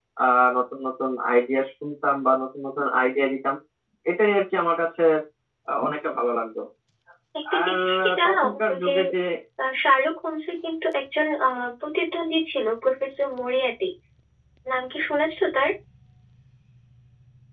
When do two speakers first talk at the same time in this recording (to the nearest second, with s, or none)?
8 s